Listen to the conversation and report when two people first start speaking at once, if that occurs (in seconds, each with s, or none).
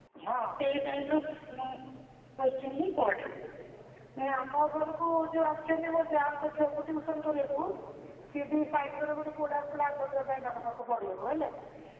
none